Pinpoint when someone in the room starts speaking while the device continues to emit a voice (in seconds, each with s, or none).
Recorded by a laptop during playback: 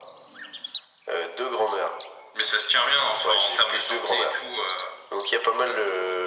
none